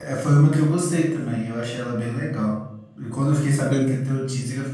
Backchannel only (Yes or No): Yes